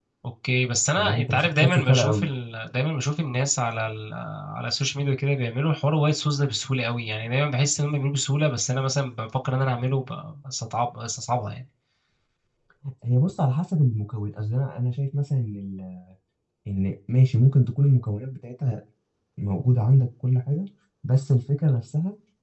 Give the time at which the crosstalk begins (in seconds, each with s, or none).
1.0 s